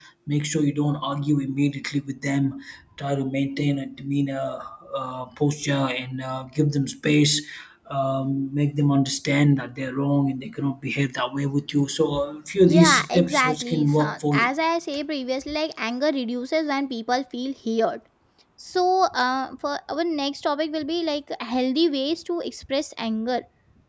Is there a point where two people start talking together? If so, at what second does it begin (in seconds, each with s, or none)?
12.7 s